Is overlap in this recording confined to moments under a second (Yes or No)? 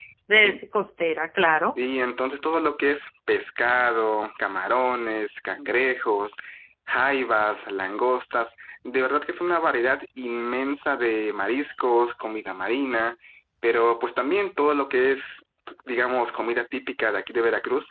Yes